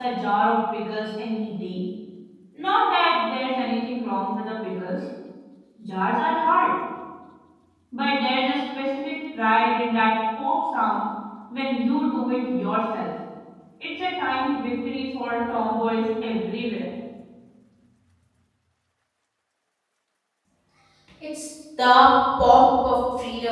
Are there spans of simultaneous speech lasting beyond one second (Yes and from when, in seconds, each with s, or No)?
No